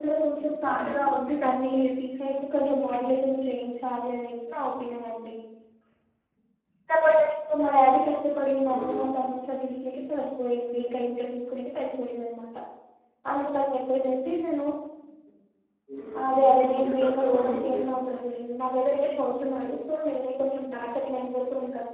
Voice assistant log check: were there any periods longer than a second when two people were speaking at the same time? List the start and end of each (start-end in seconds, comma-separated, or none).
16.3-17.8